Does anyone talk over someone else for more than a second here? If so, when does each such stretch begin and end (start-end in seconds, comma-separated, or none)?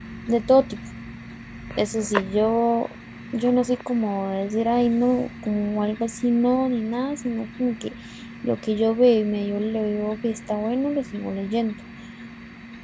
none